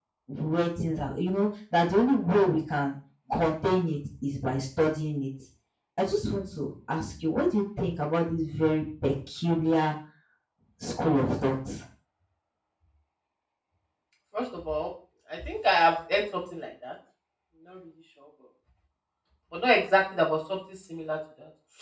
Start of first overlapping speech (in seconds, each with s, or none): none